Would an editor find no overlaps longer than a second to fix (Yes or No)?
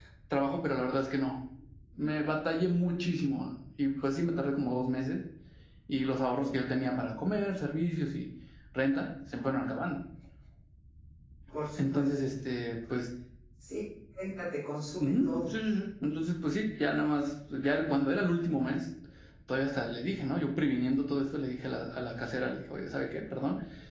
Yes